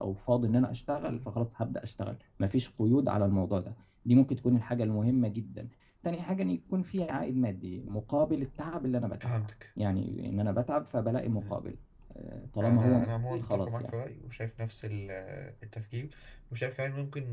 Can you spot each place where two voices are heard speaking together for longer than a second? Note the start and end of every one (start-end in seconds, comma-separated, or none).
12.6-14.0